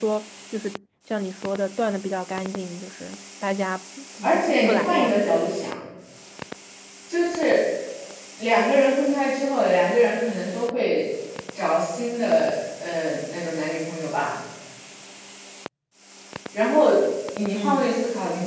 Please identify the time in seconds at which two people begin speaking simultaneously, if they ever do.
4.2 s

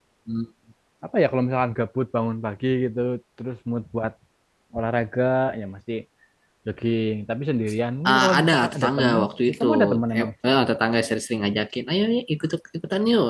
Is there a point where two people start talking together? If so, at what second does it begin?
8.1 s

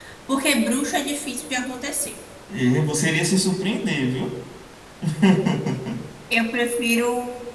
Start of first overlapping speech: none

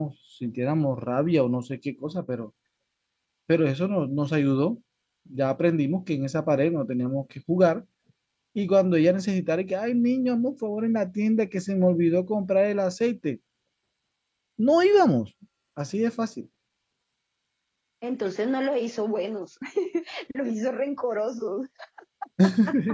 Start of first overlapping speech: none

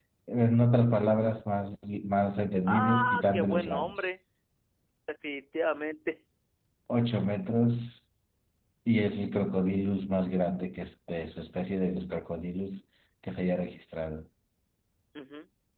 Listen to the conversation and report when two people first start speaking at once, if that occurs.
2.7 s

